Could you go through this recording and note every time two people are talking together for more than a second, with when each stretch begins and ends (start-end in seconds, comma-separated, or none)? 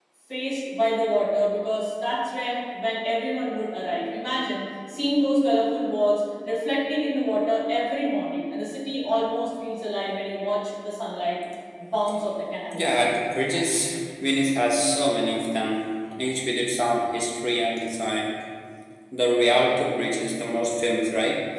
none